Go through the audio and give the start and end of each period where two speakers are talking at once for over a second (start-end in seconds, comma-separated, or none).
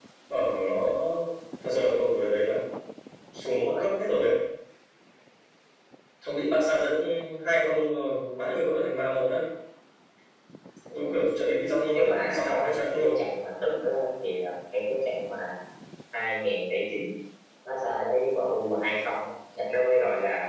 11.9-13.2